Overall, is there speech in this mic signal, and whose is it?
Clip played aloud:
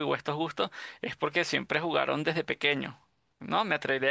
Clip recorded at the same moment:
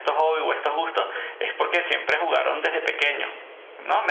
echo only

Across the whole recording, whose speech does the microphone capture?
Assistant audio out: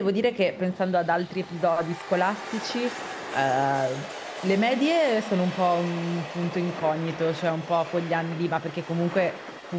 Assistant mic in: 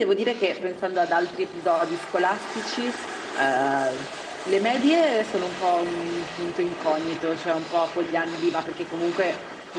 echo only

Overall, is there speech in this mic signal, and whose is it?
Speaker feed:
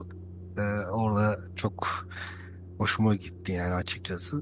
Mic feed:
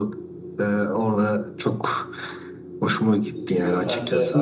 both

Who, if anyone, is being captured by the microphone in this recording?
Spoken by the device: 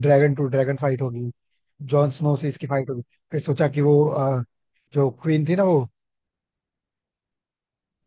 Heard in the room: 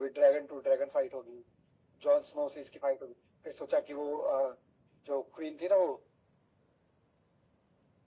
echo only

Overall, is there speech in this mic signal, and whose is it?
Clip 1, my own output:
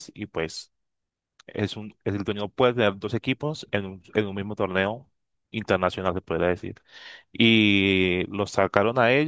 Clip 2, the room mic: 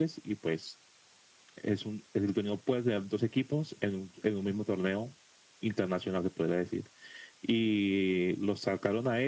echo only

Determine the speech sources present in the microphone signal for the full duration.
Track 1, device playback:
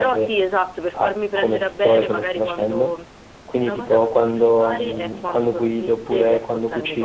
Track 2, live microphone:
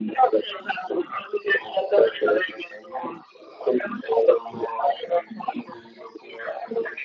echo only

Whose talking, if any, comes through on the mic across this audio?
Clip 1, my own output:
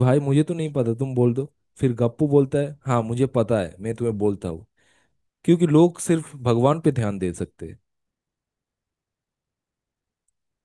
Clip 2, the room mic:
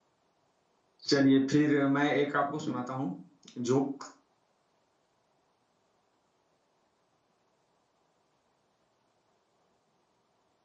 user only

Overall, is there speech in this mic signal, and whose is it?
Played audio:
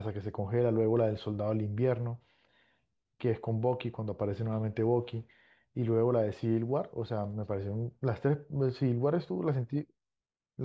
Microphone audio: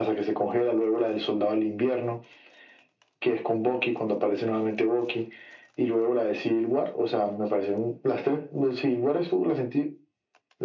echo only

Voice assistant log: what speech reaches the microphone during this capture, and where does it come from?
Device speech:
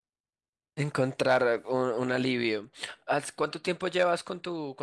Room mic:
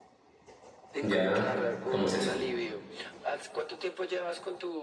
both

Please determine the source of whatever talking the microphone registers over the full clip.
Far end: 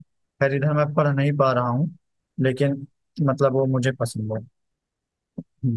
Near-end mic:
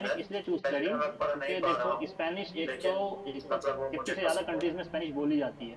both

